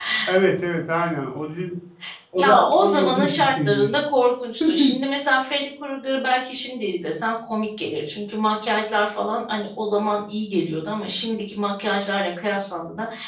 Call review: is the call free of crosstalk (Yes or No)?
No